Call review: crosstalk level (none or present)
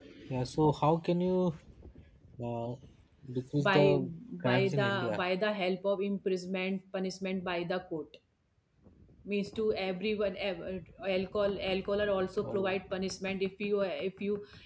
present